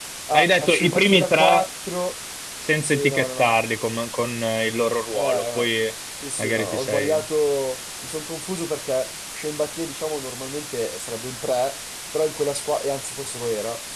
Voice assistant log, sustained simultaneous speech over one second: present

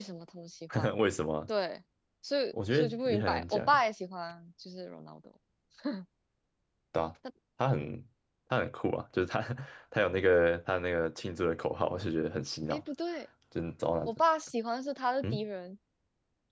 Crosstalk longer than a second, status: present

